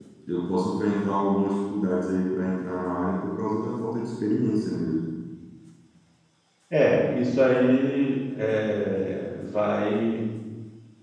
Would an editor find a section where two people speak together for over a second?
No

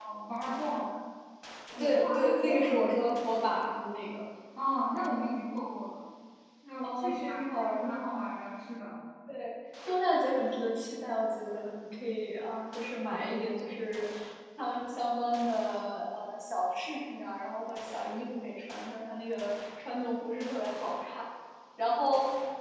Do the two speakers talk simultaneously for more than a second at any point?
Yes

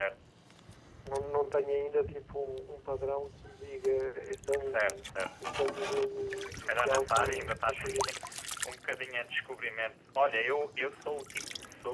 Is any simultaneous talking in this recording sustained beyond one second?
Yes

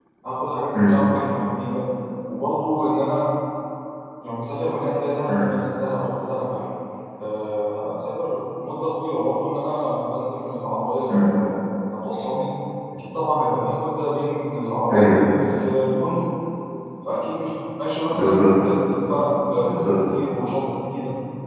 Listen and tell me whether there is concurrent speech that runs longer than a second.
No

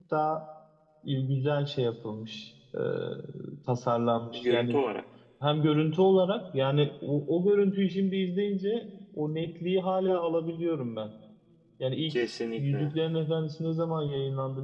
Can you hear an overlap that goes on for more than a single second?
No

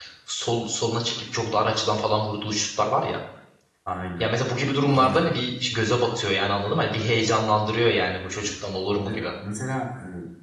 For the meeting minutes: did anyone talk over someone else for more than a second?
No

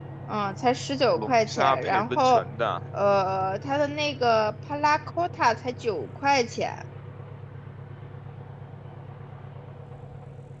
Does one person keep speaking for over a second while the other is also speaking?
Yes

